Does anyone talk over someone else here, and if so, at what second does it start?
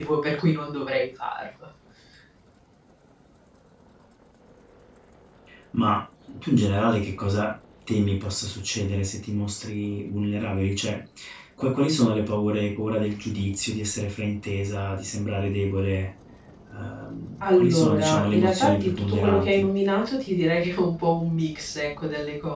17.5 s

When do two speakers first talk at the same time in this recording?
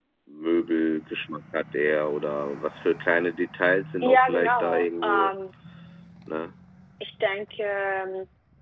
4.0 s

